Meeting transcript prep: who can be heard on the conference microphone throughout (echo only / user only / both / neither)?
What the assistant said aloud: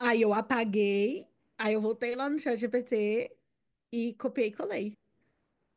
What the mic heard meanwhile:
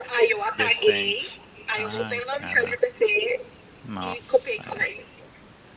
both